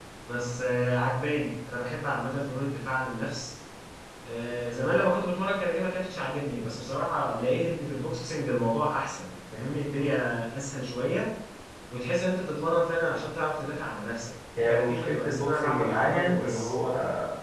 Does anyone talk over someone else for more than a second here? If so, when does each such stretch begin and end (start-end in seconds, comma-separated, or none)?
14.6-16.7